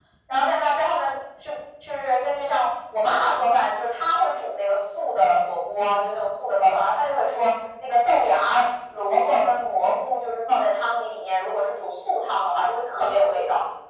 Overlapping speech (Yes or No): No